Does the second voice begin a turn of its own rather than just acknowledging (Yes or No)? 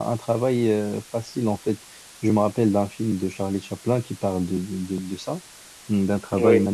No